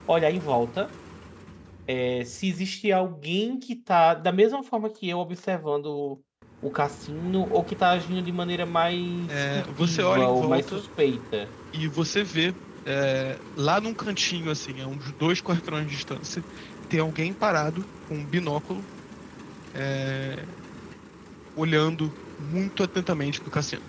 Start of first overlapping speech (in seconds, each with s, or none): 9.3 s